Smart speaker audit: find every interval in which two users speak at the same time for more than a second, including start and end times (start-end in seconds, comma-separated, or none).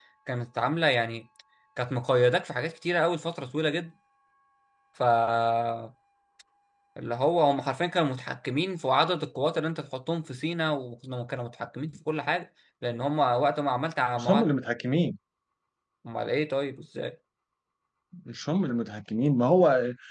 none